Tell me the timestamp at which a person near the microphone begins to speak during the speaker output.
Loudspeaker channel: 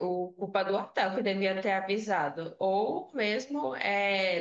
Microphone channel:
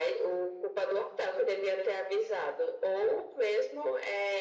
none

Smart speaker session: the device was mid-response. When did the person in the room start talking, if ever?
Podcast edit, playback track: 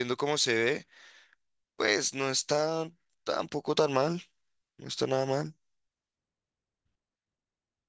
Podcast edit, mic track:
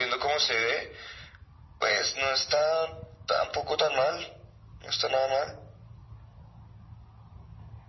none

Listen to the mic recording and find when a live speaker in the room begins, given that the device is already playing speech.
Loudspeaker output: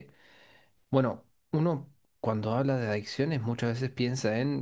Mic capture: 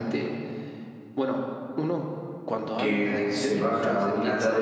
2.8 s

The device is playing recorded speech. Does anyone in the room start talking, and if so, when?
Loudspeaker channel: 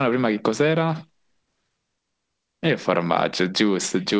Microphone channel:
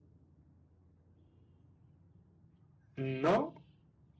3.0 s

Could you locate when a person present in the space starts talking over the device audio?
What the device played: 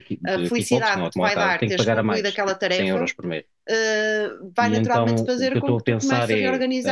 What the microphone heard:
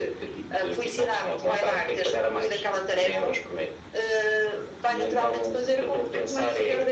none

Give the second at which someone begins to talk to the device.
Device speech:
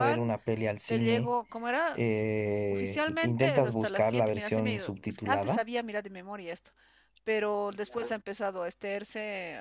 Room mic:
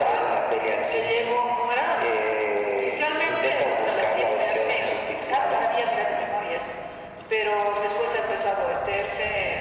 none

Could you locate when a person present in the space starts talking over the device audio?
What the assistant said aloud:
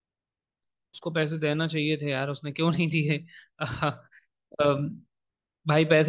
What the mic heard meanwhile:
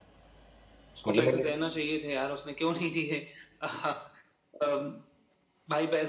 1.1 s

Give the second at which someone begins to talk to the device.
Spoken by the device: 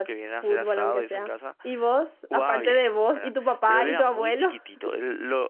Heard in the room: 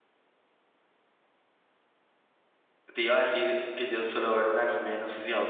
2.9 s

